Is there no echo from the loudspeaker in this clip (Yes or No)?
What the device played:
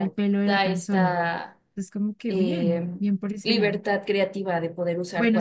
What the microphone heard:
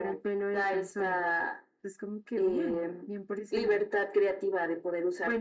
No